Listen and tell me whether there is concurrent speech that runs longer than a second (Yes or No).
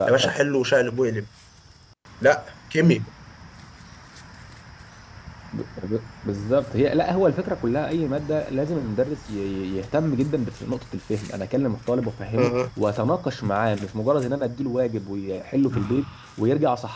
No